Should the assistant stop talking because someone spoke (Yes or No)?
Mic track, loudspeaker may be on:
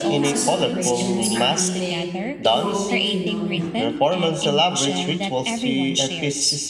Yes